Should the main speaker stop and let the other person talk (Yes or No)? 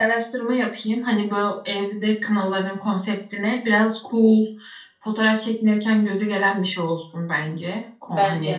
No